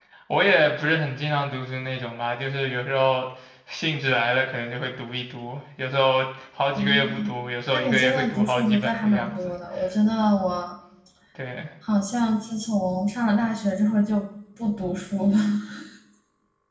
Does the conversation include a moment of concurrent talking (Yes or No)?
Yes